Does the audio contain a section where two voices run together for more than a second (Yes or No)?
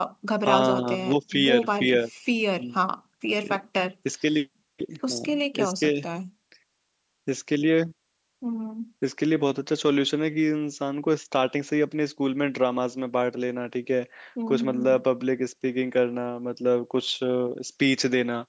Yes